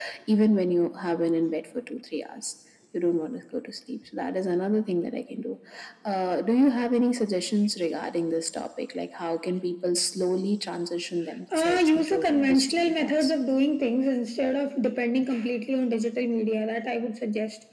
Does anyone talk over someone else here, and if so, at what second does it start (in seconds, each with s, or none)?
11.5 s